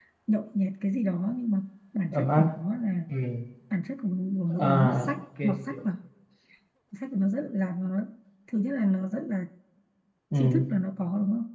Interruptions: present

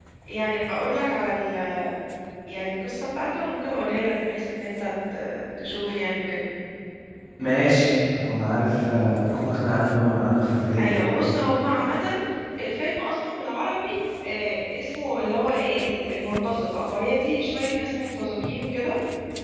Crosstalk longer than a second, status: none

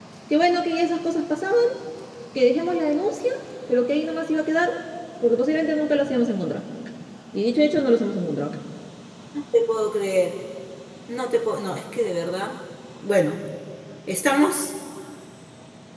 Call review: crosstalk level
none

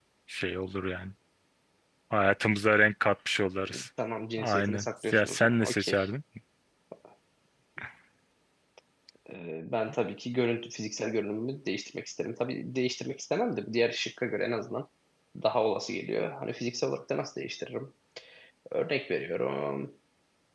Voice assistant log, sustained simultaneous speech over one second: present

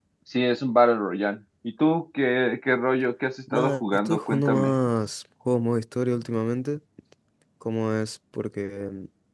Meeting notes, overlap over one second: present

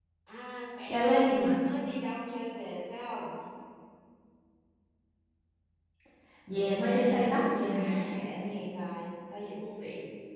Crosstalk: present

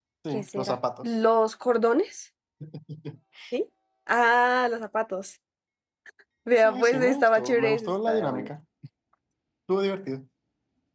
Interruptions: present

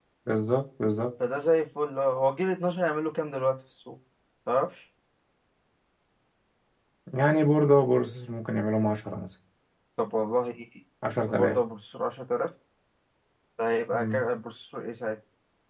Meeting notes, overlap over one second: none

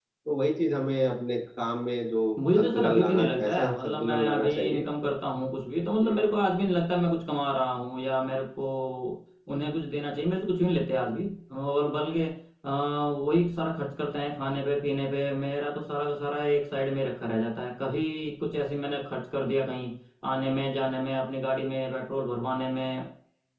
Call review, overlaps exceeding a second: present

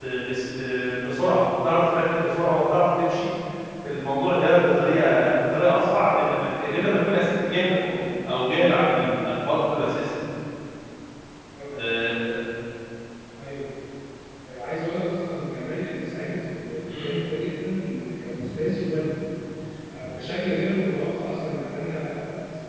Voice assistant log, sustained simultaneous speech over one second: none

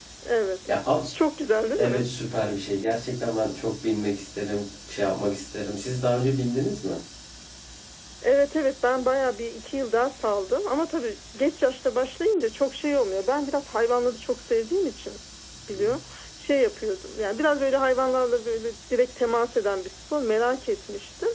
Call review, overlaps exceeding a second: none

